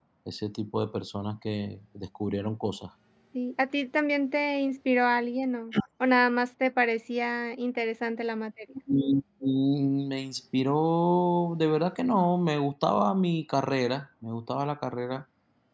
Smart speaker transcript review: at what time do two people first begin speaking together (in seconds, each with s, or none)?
none